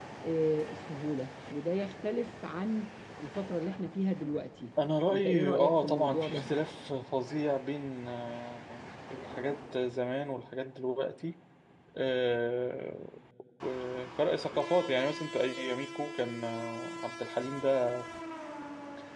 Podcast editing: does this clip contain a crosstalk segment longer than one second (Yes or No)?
Yes